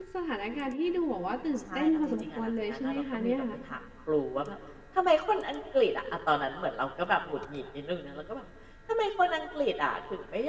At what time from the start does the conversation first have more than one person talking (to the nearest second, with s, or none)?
2 s